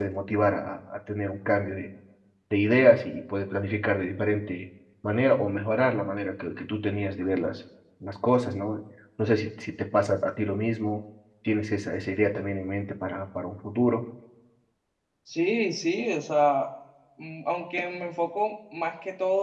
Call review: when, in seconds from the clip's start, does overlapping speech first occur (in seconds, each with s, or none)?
none